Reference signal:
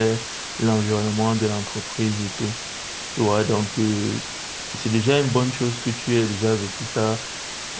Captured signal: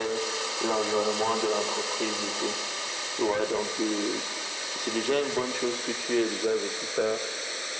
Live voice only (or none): none